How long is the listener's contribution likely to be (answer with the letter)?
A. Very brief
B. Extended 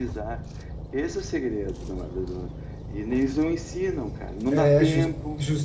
B